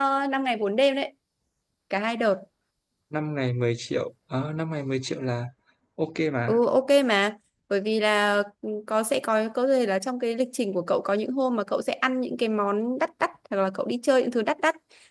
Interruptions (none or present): none